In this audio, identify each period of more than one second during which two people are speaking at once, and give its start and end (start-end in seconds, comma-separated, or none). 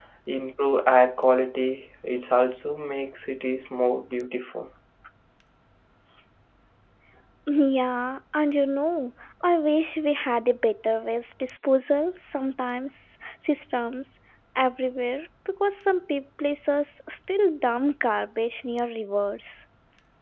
none